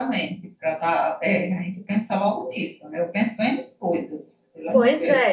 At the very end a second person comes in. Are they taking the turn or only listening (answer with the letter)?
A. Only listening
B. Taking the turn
B